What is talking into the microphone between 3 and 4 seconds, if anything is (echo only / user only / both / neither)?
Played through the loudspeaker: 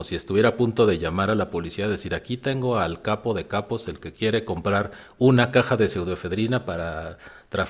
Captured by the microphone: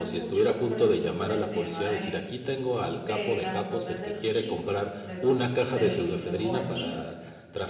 both